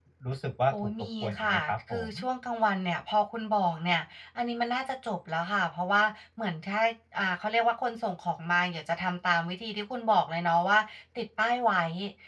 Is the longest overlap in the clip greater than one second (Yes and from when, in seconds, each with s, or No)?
Yes, from 0.7 s